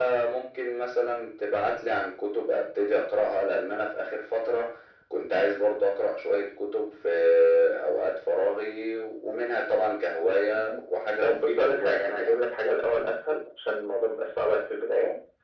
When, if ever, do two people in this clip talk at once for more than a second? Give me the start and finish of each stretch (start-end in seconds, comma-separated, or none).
11.2-12.4